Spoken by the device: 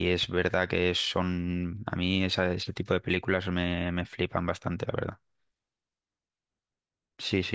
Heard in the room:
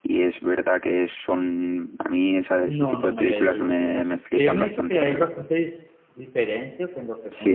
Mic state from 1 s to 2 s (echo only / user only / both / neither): echo only